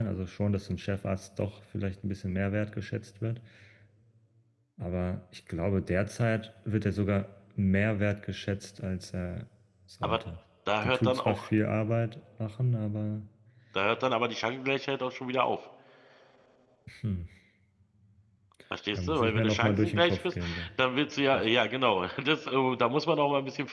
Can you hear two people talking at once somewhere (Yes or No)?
Yes